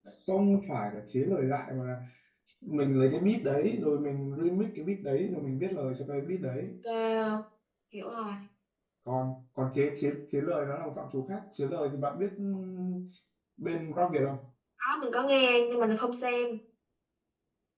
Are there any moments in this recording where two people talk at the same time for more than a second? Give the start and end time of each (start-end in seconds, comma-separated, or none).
none